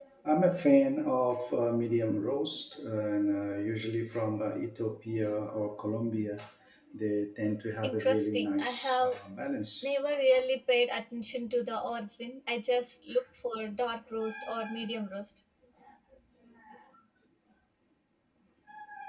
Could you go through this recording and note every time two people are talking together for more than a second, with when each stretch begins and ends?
7.8-9.2

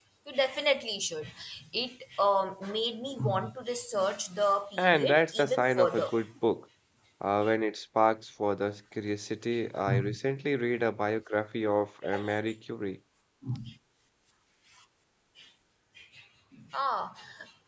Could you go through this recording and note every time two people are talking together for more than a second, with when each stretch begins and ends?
4.8-6.0

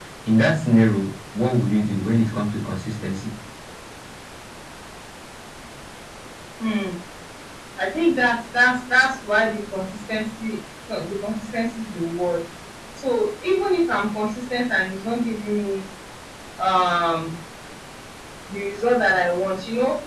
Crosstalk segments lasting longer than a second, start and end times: none

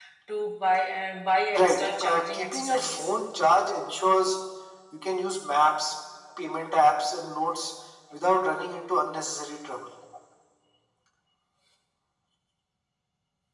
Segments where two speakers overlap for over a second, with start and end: 1.5-3.1

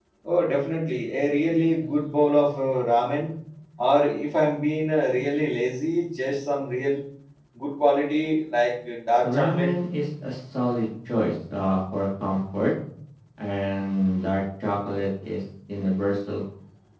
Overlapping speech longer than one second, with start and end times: none

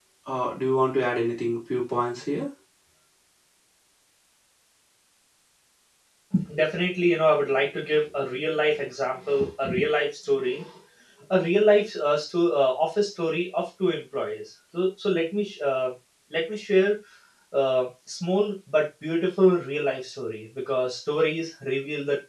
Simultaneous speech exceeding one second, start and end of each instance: none

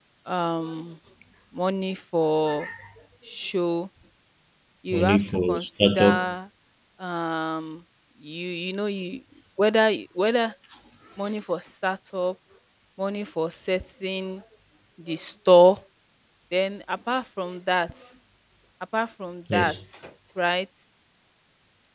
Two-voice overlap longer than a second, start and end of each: 4.9-6.3

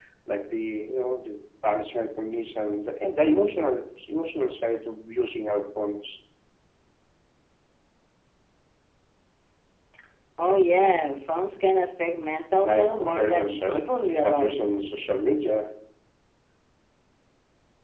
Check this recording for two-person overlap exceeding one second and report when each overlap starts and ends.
12.6-14.5

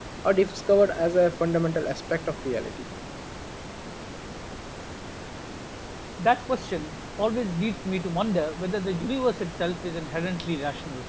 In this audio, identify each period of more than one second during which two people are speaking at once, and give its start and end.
none

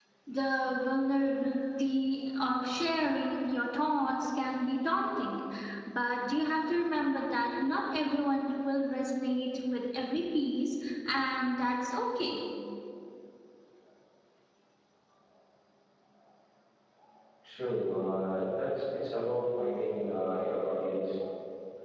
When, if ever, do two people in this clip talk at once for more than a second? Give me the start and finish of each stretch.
none

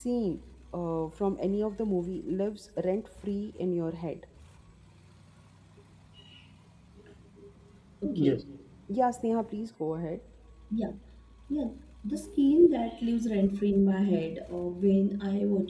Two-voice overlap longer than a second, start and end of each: none

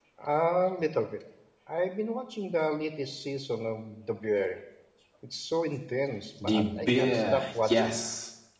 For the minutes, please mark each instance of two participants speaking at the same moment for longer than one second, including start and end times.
6.4-8.0

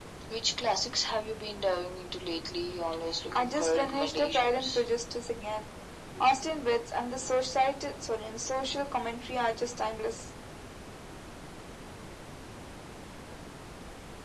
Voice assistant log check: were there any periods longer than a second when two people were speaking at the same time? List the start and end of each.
3.4-4.8

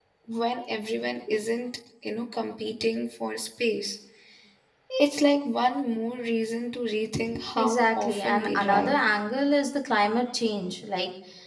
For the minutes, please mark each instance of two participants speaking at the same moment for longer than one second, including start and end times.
7.6-9.0

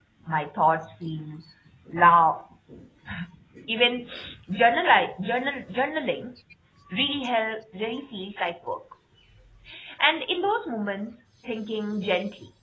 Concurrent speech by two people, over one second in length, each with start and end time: none

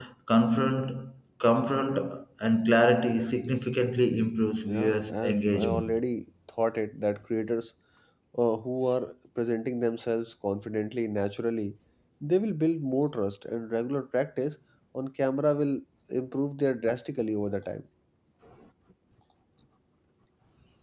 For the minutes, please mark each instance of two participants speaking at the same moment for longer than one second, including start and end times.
4.7-6.0

